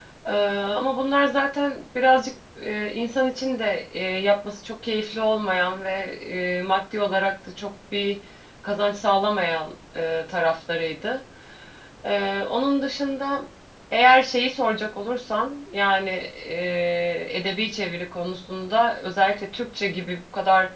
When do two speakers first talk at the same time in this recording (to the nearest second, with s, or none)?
none